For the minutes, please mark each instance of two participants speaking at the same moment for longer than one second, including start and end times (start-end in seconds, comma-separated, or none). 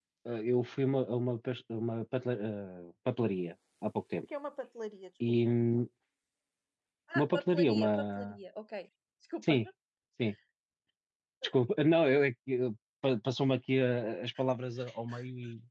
7.2-8.4